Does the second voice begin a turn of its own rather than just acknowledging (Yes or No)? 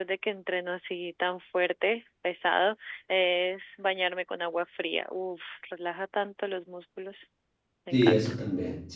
Yes